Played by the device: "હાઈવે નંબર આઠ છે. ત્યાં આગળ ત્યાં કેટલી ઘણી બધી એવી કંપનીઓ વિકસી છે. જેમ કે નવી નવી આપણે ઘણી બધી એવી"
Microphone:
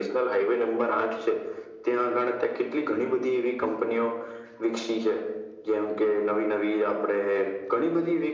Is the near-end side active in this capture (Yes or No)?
No